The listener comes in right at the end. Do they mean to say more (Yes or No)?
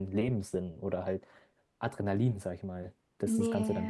Yes